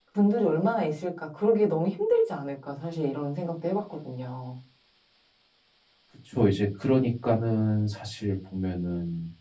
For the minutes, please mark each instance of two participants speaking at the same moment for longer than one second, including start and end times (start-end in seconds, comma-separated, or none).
none